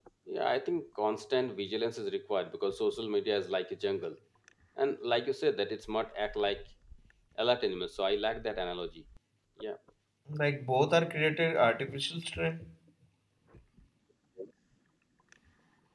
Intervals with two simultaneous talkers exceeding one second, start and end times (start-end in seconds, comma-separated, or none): none